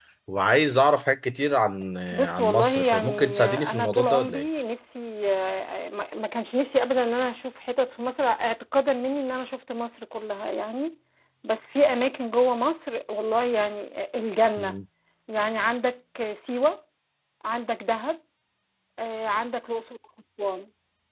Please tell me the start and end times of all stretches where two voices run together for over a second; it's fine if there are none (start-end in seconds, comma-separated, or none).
2.1-4.4